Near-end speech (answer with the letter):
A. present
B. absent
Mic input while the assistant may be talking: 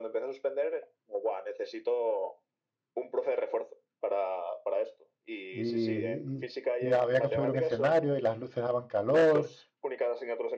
A